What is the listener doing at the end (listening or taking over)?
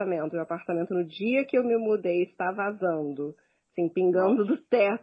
listening